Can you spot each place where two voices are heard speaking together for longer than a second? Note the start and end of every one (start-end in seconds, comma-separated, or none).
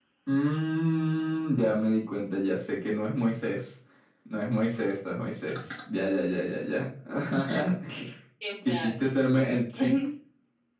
8.6-9.9